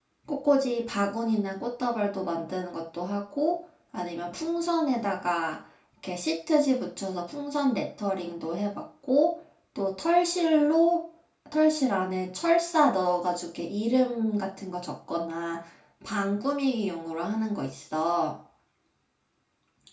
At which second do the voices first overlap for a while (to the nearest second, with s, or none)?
none